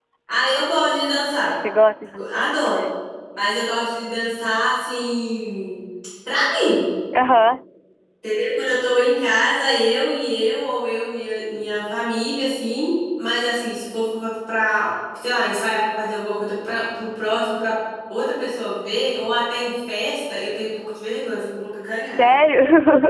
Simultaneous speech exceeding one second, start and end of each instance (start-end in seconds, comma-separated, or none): none